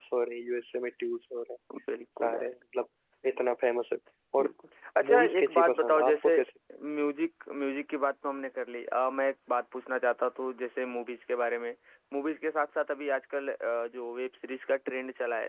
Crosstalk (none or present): present